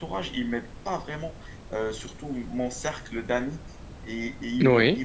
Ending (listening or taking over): listening